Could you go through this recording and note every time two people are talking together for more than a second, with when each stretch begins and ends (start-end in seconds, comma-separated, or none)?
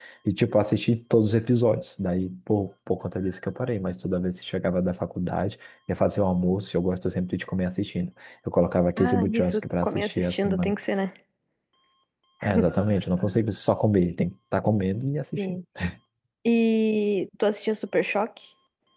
9.0-10.7